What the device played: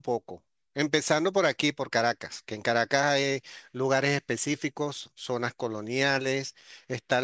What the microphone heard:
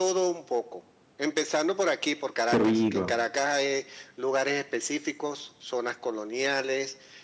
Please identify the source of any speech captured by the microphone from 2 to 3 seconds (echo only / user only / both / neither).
both